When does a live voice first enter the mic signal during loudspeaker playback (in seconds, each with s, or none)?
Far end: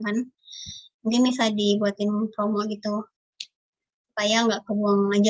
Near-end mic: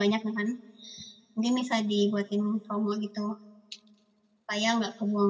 none